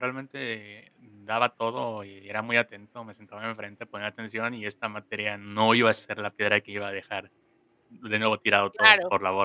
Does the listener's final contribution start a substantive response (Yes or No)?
Yes